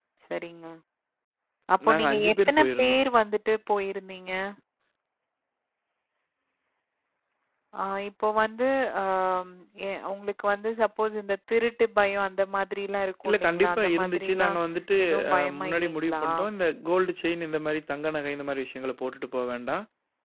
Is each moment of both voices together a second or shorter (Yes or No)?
No